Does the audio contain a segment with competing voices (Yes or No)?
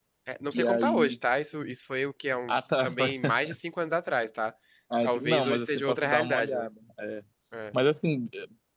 Yes